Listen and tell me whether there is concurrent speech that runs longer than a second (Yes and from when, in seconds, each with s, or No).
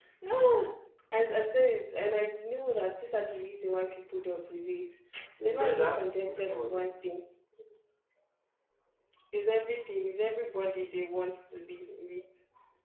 Yes, from 5.4 s